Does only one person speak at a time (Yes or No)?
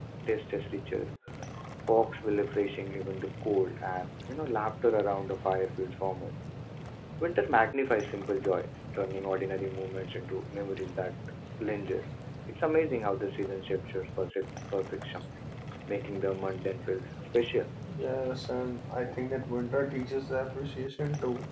Yes